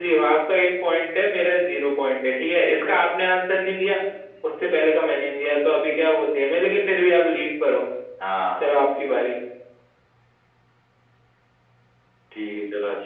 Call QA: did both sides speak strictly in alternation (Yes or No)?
Yes